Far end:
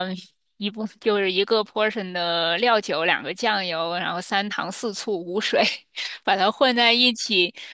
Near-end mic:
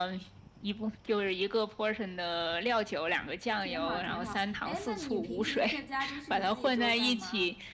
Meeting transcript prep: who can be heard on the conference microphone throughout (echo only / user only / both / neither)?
both